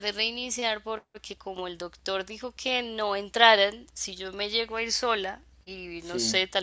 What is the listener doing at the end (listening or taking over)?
listening